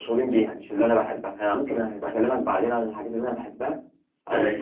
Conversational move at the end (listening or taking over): listening